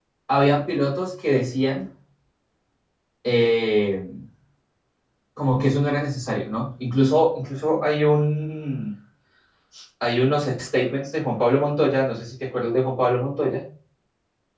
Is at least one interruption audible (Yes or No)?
No